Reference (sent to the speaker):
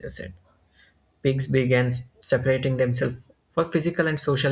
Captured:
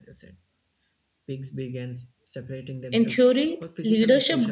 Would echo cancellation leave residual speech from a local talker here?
Yes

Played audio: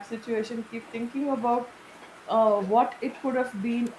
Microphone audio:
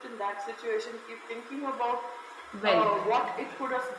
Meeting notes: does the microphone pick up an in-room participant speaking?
Yes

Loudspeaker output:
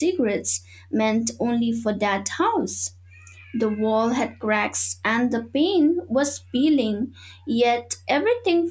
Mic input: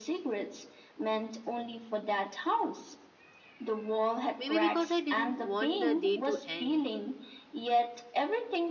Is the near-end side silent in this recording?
No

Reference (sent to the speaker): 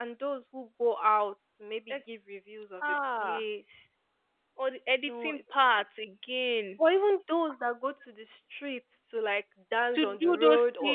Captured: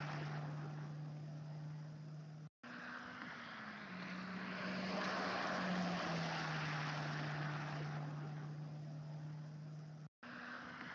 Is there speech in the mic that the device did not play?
No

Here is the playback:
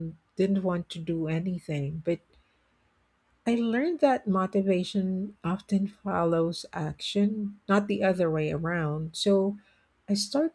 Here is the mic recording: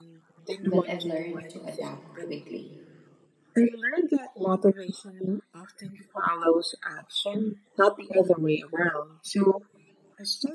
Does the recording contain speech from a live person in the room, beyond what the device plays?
Yes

